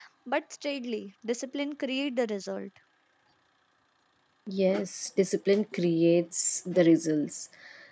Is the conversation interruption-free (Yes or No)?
Yes